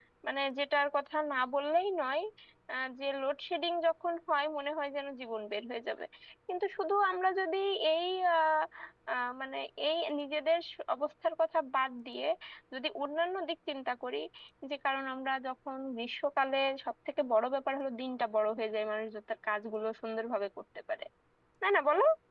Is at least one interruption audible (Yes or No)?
No